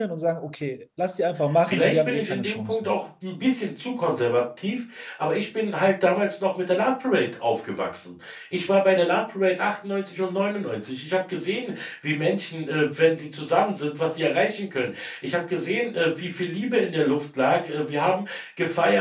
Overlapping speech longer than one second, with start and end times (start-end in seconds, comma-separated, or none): 1.7-2.9